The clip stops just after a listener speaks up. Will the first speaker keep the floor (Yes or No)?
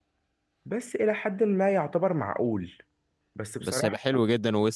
No